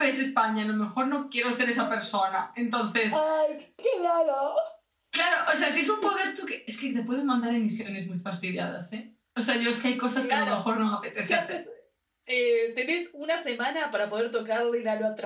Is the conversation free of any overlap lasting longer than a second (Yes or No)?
Yes